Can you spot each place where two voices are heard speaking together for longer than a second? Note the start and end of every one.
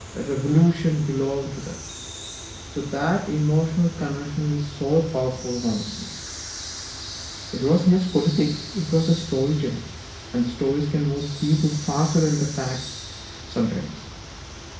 none

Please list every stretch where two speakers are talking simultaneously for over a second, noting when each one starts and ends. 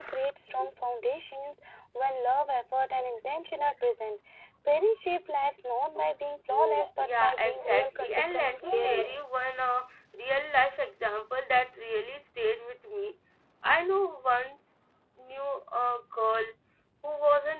7.0-9.1

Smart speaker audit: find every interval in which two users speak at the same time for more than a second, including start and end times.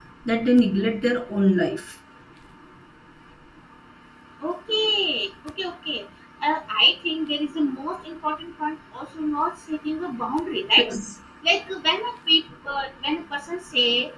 none

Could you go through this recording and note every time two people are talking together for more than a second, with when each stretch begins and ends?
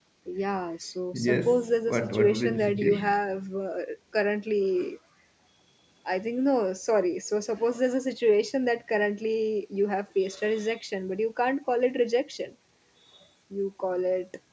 1.1-3.1

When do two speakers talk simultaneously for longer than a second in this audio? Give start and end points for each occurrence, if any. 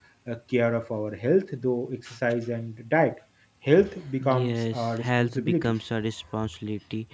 4.2-5.7

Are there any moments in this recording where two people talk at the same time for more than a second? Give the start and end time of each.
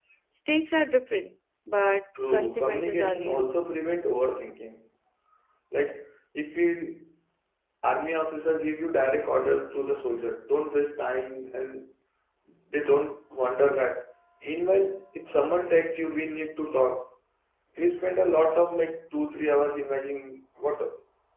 2.3-3.5

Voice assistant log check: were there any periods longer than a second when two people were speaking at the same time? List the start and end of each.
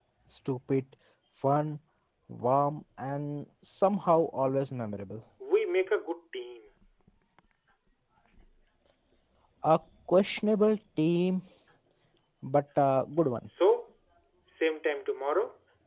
none

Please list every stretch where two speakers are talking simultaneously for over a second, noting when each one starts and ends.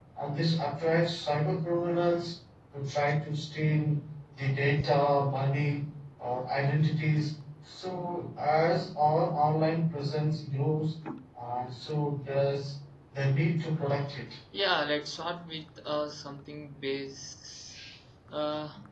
none

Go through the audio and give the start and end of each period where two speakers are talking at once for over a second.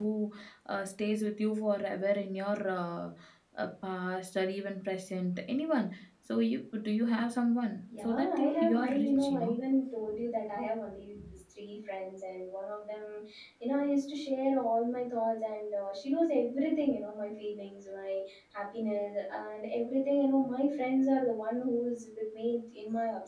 8.0-9.5

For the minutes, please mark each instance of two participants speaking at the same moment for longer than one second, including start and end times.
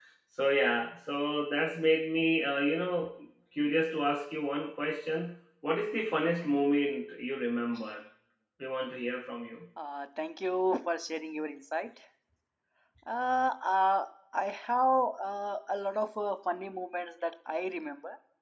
none

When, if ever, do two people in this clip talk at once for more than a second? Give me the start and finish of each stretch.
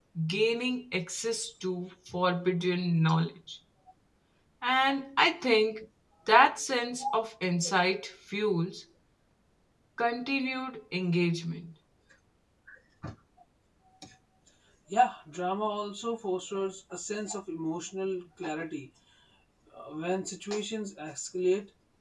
none

